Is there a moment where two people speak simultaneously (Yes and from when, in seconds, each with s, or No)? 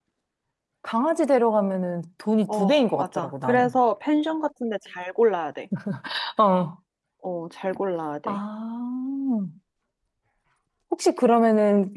Yes, from 2.5 s